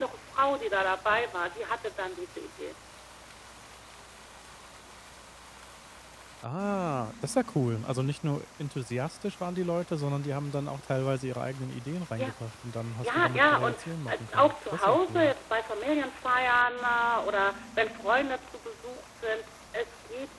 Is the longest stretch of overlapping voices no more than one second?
No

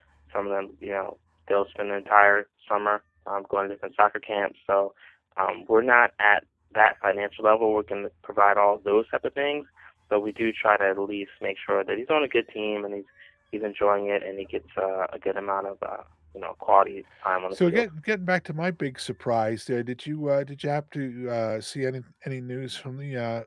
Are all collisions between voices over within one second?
Yes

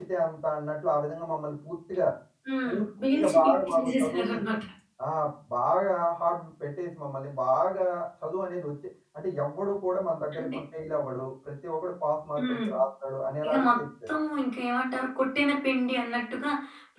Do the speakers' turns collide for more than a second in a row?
Yes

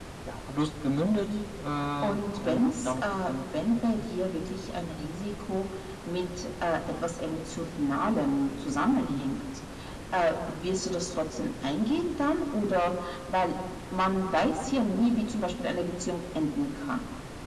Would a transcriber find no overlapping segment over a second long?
No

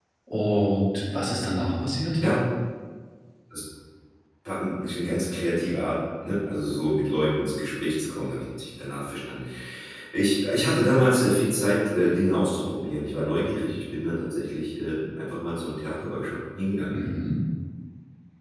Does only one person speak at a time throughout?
Yes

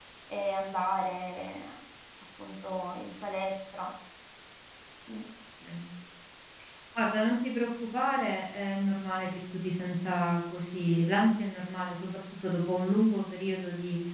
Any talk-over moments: No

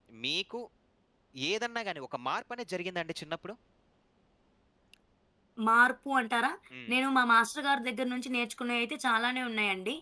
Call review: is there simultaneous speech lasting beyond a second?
No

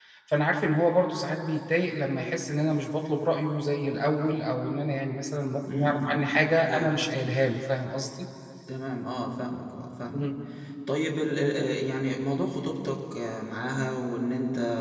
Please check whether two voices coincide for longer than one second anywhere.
No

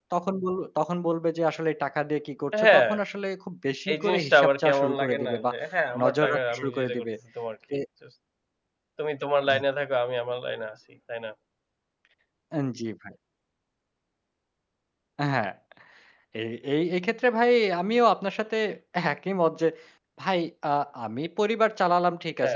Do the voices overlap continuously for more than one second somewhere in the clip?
Yes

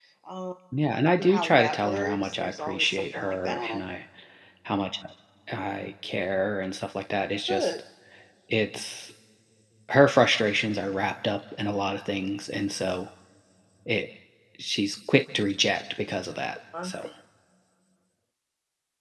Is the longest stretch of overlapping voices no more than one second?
No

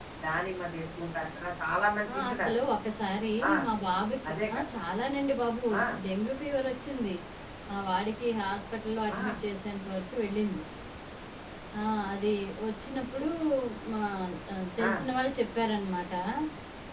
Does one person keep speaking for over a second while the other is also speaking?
No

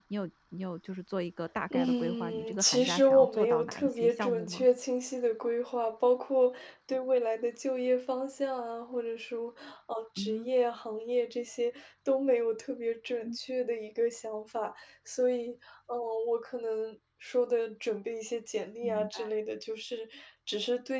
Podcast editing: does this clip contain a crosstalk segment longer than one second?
Yes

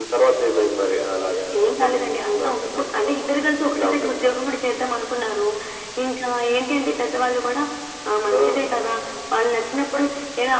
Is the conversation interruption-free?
No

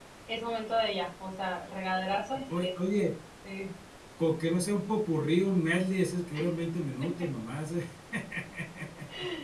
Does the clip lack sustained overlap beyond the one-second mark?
Yes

